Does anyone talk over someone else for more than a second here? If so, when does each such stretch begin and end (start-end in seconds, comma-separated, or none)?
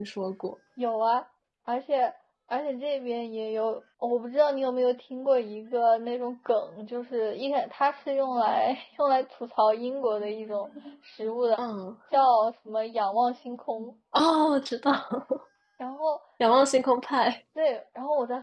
none